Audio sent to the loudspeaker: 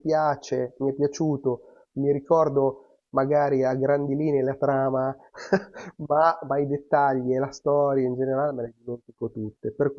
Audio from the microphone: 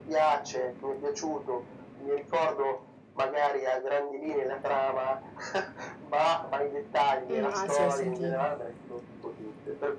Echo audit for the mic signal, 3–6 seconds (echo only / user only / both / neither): echo only